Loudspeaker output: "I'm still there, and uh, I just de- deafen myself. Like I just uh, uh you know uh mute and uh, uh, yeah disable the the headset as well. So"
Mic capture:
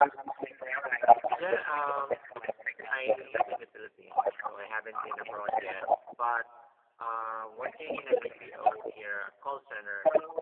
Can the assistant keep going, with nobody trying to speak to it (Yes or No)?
No